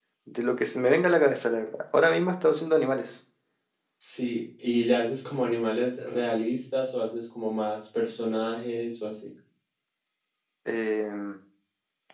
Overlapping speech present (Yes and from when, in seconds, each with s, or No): No